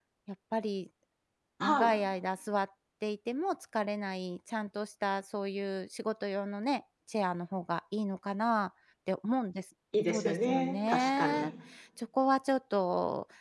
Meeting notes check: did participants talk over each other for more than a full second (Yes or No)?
Yes